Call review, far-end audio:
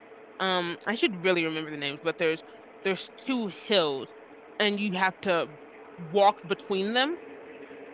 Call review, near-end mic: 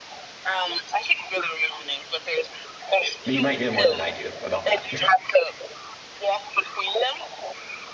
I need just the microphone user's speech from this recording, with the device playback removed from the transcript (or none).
You might know more than I do about that.